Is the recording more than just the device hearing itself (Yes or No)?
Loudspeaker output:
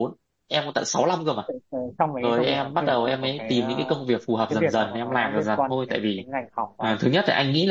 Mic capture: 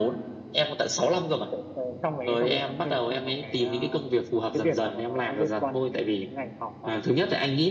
No